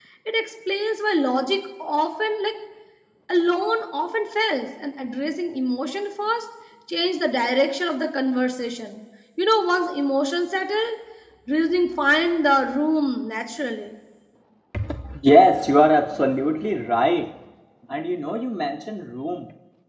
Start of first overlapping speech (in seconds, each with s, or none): none